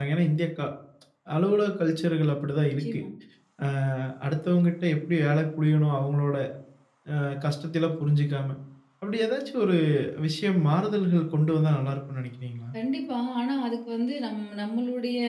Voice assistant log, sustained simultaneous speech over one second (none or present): none